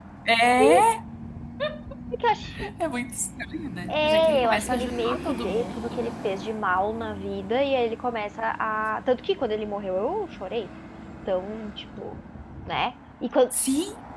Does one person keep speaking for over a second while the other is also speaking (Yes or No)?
Yes